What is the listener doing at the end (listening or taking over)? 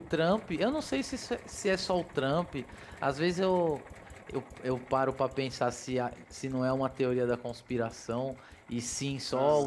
listening